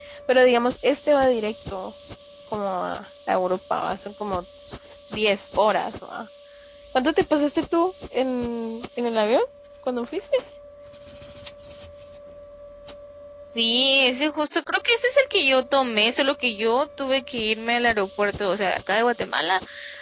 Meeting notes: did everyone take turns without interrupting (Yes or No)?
Yes